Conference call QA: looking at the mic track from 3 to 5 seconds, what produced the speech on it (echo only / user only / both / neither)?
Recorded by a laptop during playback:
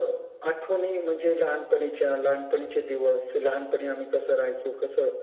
echo only